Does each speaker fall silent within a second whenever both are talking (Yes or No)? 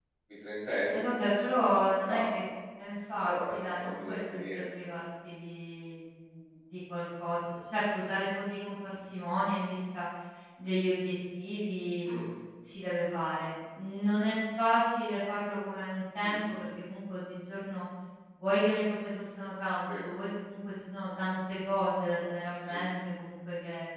No